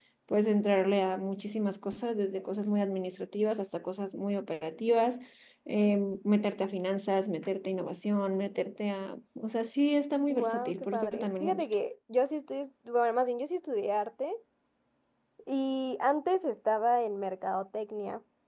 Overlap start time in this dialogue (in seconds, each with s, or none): 10.3 s